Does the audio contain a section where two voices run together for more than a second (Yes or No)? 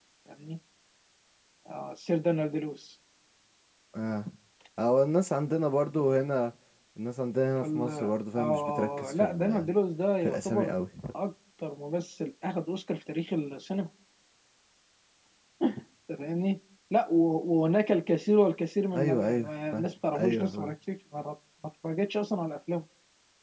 Yes